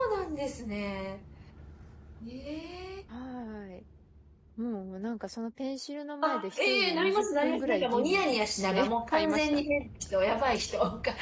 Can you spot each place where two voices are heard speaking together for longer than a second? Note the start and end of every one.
6.2-9.6

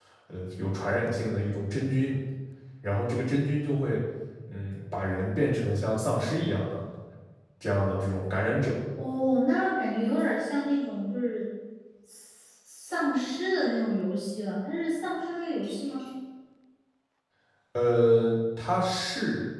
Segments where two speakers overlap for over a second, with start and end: none

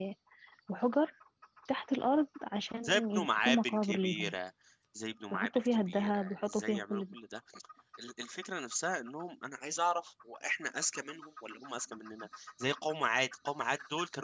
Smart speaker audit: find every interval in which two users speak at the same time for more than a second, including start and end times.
2.8-4.3, 5.3-7.1

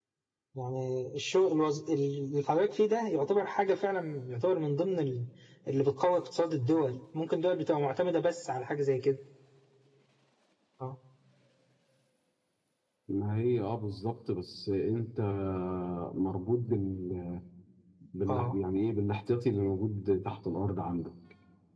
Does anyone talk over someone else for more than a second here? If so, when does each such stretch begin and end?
none

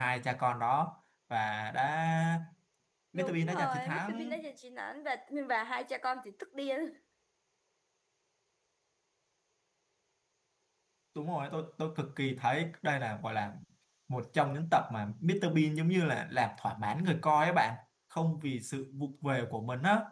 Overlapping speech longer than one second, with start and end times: 3.1-4.3

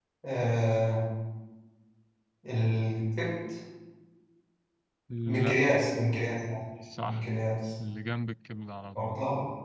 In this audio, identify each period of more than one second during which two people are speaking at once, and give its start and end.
none

